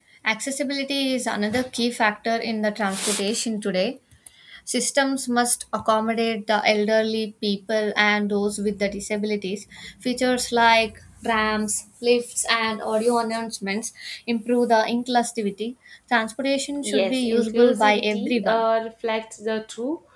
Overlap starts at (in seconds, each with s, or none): 16.8 s